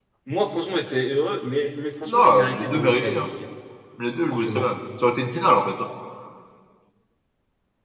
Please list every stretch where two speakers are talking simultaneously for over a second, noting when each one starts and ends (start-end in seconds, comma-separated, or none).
2.1-3.3